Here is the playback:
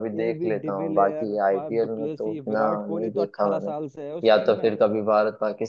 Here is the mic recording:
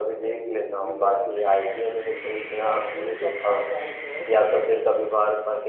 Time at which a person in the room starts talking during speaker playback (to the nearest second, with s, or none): none